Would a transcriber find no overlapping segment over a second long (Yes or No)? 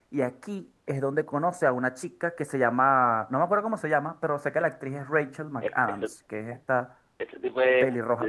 Yes